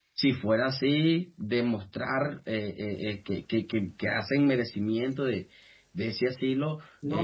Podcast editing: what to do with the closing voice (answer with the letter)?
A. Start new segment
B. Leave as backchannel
A